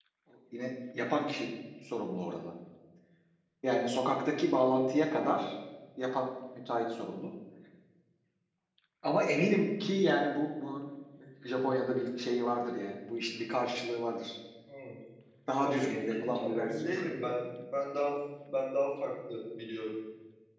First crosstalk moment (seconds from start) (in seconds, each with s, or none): 15.6 s